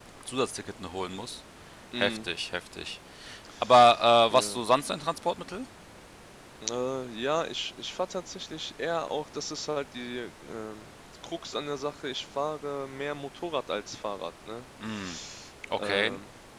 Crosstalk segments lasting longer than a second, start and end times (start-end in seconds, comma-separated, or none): none